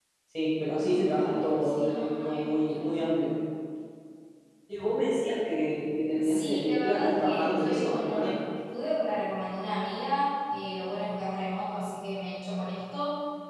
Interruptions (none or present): present